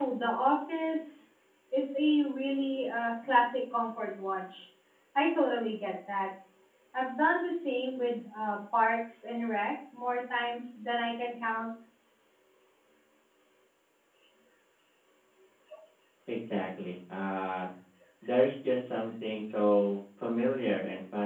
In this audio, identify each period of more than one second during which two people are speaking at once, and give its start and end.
none

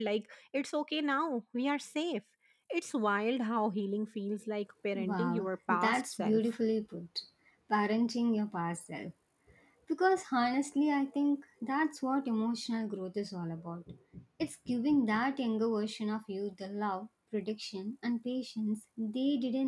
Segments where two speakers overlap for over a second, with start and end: 5.0-6.4

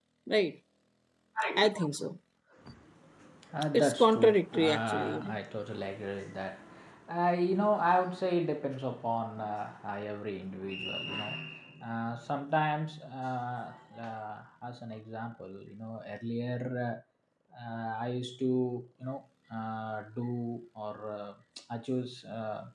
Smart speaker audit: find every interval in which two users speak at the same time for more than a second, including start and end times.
3.7-5.4

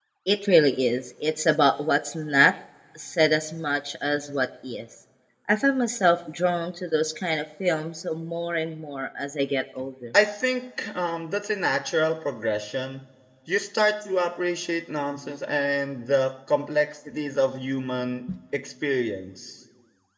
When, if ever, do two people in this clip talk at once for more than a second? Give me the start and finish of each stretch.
none

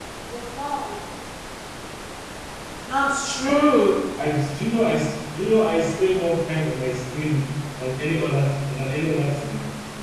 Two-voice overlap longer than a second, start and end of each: none

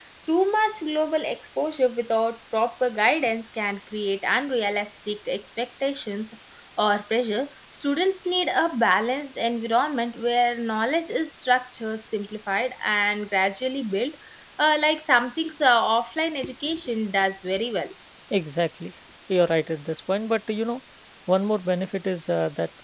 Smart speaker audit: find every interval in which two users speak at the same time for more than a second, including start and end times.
none

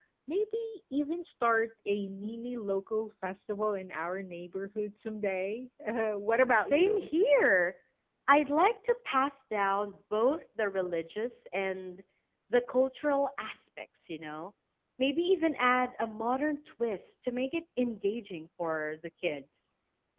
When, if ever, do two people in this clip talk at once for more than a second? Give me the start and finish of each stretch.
none

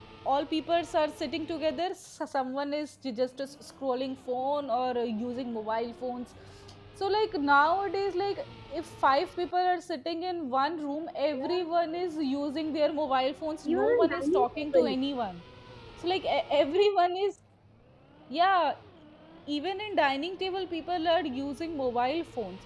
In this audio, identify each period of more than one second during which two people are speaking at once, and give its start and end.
13.6-14.9

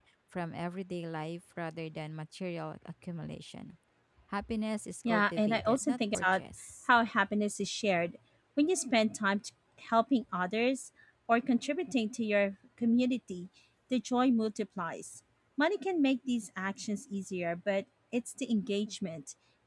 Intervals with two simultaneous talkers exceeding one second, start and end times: 5.0-6.4

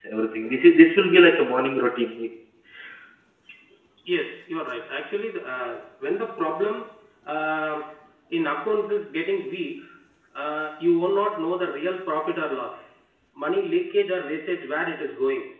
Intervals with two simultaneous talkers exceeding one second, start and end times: none

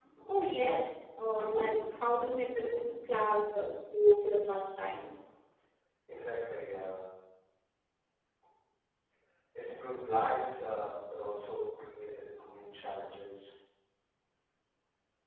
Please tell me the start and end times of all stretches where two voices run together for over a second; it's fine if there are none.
none

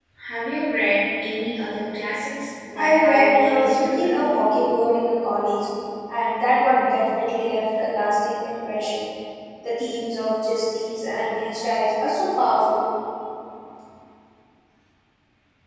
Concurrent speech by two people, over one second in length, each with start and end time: 2.7-4.4

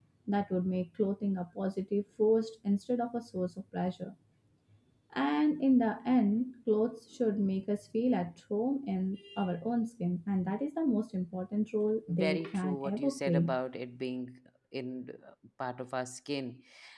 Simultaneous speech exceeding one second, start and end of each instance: 12.1-13.5

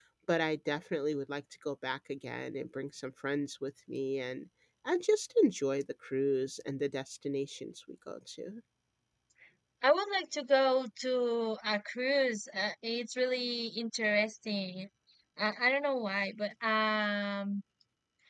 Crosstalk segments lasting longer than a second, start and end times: none

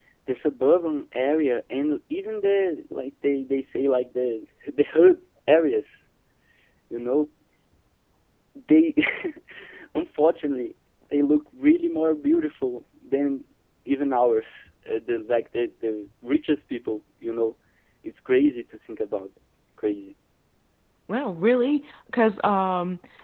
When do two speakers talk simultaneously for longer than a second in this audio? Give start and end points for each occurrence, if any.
none

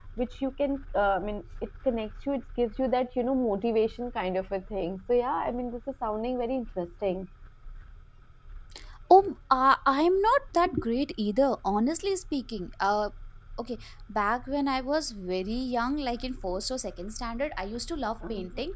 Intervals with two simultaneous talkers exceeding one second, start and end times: none

